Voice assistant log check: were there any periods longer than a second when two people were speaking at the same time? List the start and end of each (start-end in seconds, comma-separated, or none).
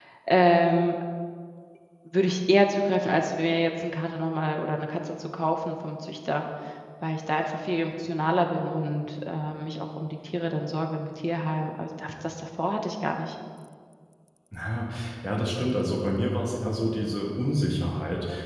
none